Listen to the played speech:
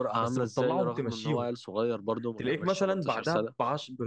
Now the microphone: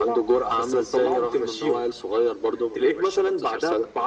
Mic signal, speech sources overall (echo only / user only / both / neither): echo only